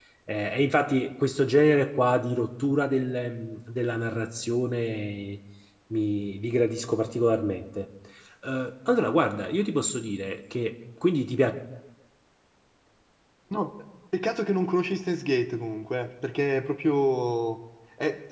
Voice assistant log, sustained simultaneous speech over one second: none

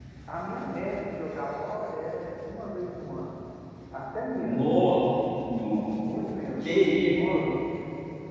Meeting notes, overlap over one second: none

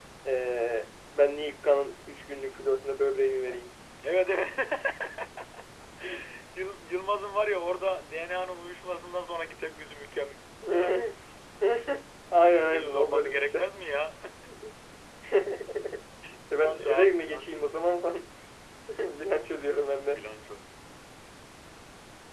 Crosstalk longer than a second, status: present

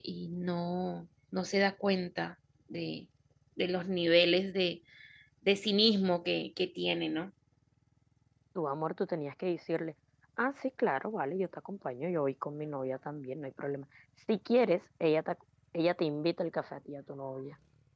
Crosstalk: none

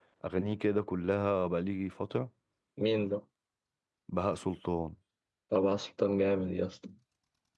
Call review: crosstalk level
none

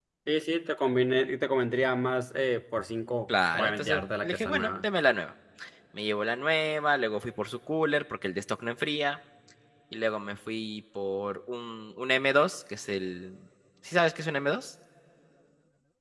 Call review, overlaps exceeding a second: present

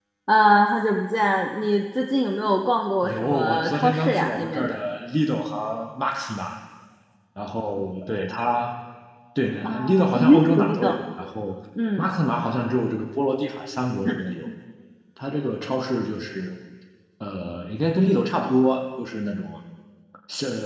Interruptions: present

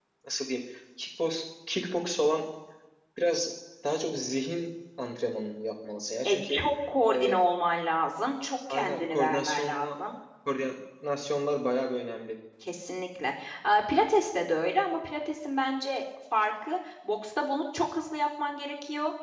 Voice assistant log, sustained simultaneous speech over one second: present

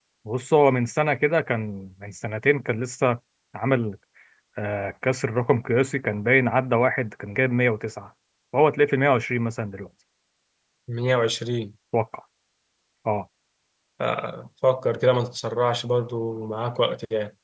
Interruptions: none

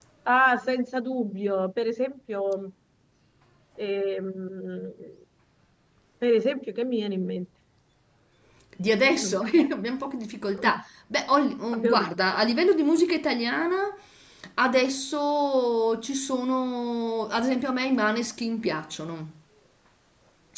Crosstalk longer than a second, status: none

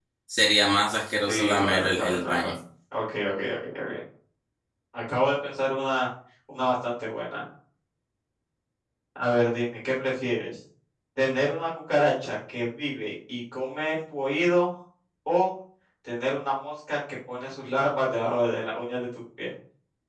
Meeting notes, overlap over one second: present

